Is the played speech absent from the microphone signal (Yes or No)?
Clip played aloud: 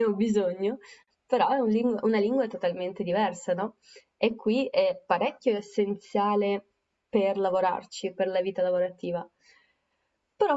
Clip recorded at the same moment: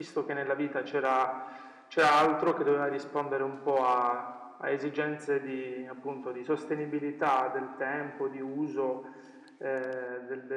Yes